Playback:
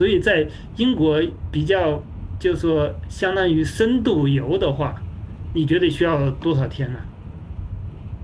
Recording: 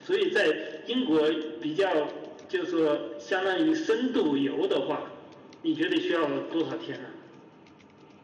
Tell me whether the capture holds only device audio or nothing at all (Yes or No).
Yes